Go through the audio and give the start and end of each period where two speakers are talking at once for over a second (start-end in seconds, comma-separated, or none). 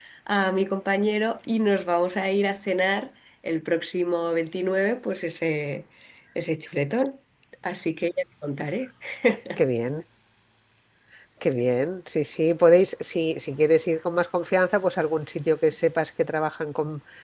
none